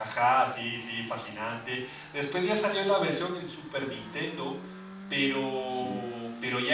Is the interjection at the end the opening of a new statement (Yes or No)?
No